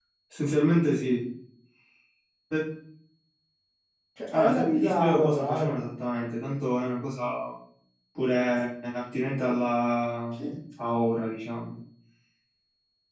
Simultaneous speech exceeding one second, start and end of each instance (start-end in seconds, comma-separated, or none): 4.3-5.8